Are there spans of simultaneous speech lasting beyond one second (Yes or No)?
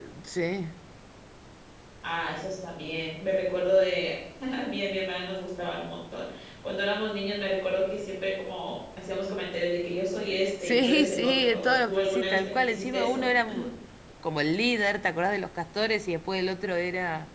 Yes